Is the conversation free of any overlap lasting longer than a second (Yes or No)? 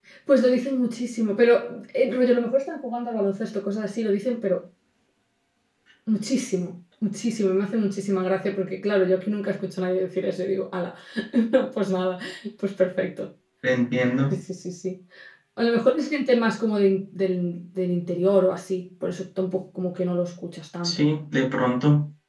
Yes